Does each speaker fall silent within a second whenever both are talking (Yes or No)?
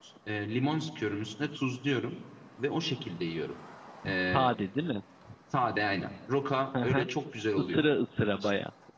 Yes